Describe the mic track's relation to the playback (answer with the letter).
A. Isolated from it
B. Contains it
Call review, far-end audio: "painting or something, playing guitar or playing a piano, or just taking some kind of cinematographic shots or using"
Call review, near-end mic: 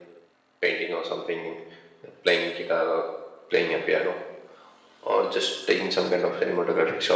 B